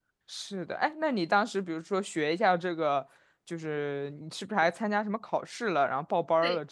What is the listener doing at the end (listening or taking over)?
taking over